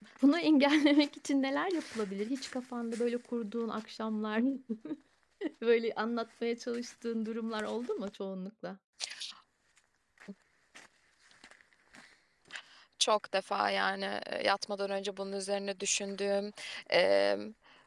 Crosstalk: none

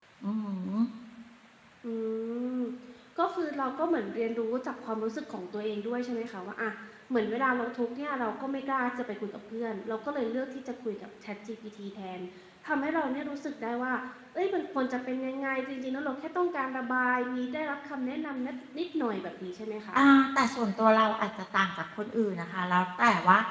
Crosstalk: none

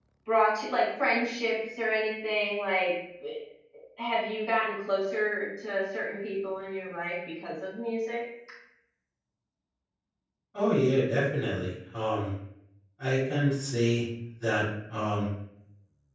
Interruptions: none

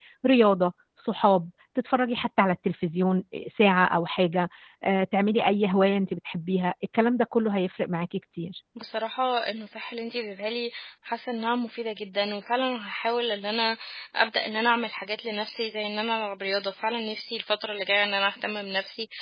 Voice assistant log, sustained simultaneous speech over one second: none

